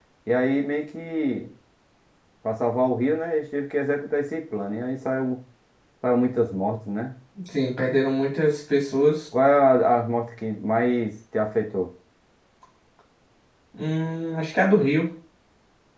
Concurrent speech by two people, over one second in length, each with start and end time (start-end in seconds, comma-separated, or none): none